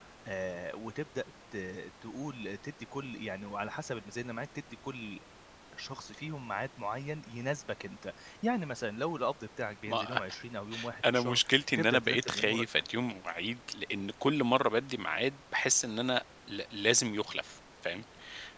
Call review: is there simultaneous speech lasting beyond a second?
Yes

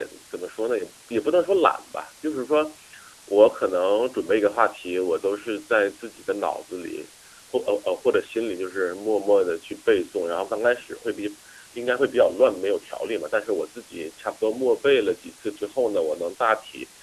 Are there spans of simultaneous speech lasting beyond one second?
No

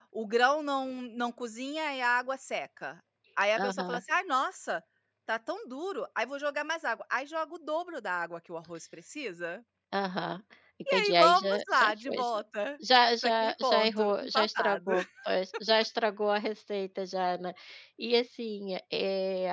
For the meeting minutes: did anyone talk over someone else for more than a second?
Yes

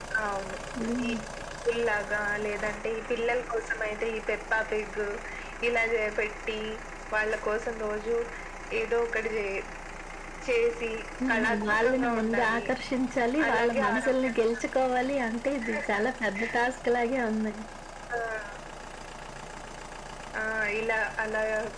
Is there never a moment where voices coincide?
No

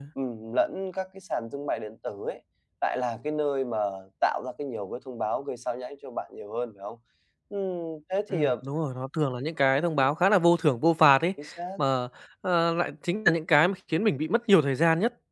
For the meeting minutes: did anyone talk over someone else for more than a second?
No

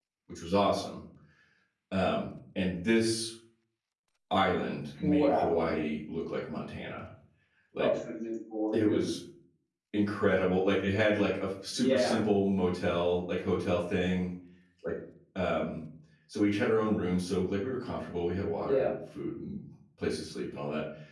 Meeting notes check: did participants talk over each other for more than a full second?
No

